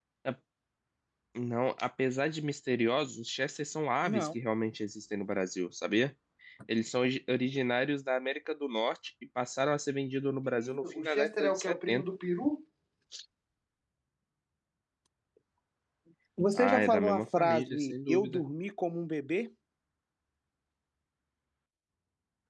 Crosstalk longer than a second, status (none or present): present